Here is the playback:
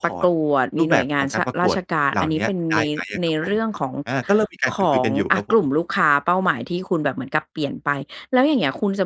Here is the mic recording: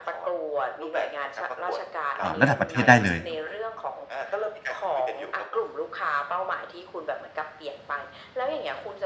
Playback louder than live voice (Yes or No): No